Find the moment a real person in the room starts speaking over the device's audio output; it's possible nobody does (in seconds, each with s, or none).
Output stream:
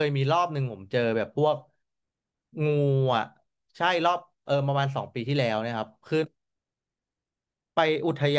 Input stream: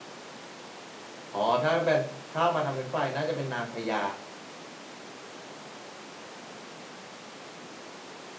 1.3 s